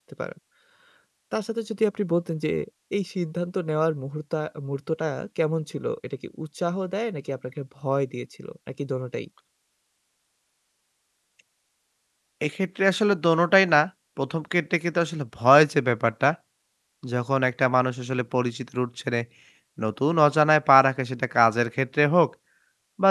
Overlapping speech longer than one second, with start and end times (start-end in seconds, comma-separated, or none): none